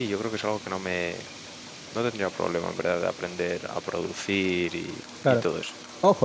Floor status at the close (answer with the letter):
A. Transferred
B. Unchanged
A